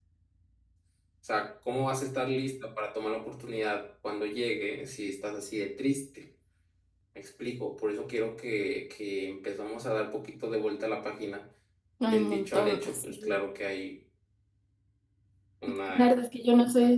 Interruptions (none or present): present